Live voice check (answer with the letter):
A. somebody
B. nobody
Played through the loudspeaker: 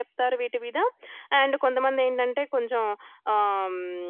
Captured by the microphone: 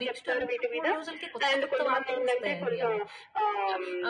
A